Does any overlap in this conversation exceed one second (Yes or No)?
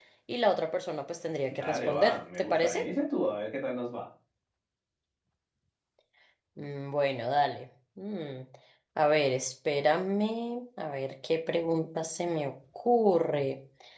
Yes